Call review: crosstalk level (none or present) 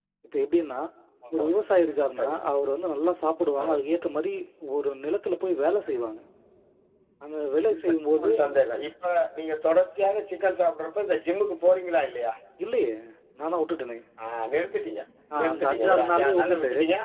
present